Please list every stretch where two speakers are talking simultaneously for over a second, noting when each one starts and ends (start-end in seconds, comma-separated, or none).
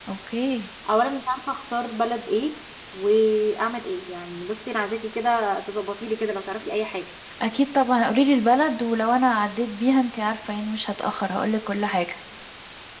none